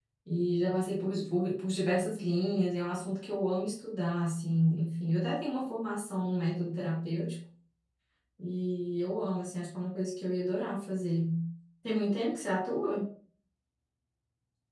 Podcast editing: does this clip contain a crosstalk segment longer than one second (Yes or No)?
No